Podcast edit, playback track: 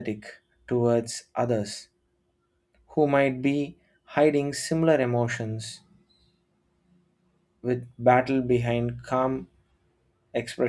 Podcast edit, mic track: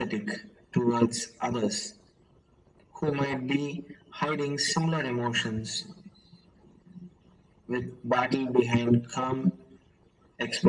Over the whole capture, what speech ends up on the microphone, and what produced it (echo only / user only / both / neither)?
echo only